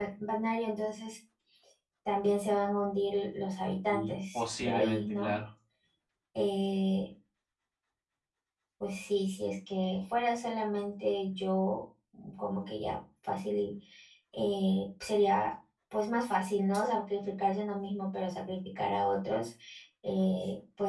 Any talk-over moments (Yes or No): Yes